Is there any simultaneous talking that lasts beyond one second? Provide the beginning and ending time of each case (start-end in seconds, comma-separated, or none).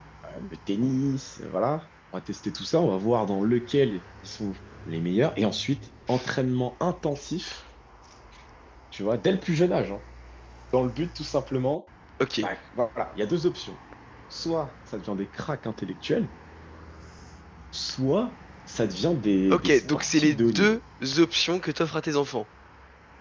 19.5-20.8